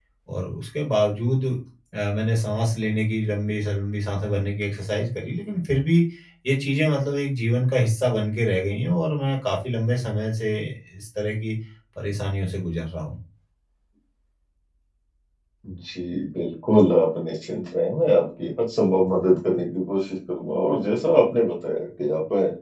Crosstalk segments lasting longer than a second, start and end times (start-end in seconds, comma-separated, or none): none